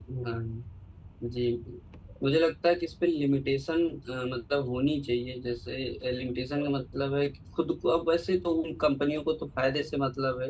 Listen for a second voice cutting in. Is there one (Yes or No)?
No